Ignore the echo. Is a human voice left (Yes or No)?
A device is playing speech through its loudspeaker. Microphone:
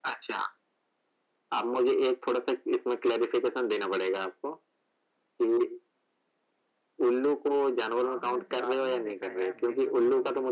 Yes